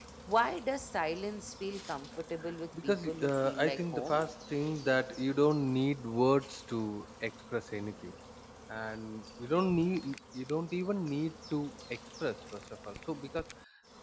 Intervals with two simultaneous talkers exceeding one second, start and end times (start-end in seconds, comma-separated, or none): 2.8-4.2